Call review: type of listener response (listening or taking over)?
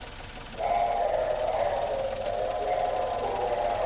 listening